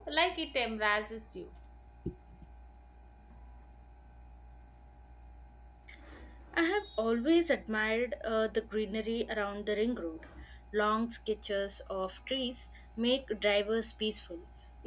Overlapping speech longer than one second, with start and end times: none

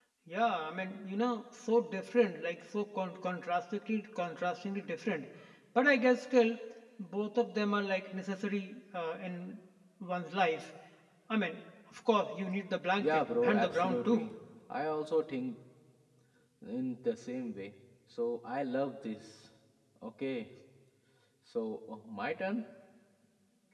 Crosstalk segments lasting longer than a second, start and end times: 13.0-14.3

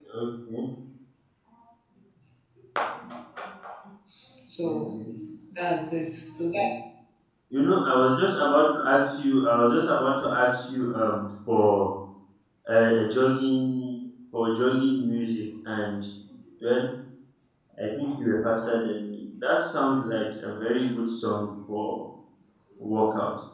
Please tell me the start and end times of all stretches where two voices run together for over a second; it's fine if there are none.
none

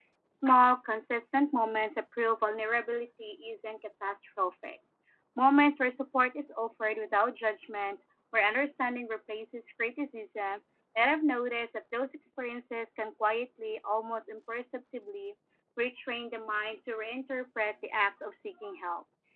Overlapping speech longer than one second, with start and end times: none

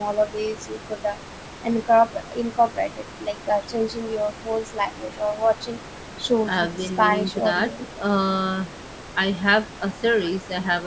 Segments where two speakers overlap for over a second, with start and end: 6.5-7.7

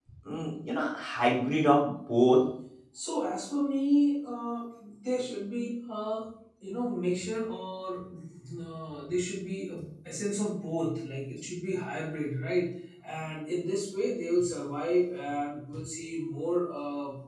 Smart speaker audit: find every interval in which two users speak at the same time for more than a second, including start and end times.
none

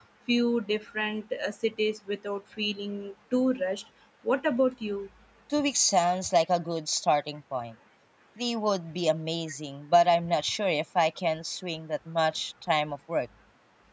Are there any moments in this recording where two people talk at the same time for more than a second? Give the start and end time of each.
none

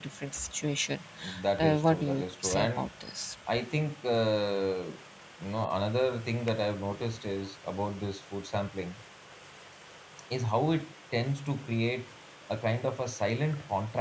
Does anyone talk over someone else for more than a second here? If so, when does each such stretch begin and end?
1.6-2.9

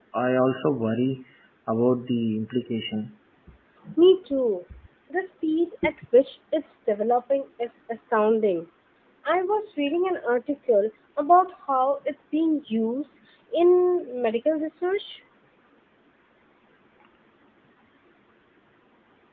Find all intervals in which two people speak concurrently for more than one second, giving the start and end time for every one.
none

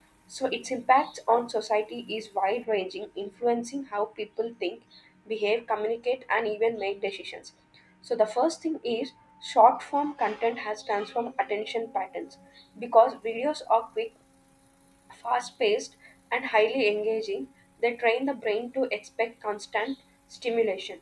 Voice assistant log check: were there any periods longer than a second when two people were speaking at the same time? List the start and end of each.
none

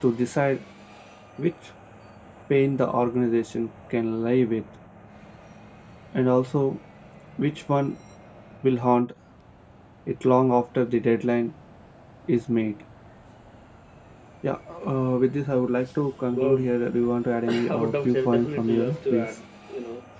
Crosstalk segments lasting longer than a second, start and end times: 17.7-19.4

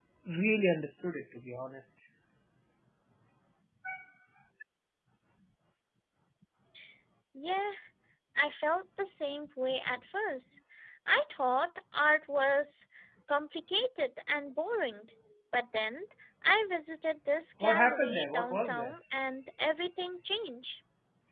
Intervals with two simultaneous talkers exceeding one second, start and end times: 17.6-19.0

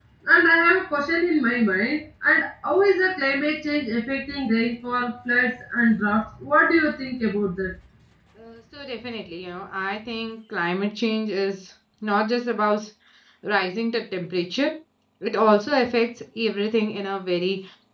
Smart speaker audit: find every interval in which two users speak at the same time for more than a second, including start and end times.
none

